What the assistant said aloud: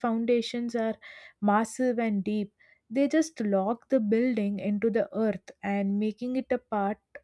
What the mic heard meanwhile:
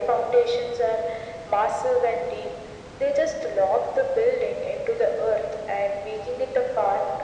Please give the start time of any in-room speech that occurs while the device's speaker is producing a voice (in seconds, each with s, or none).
none